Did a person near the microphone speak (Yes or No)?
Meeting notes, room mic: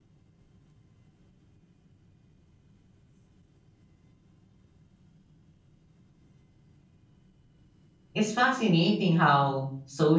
Yes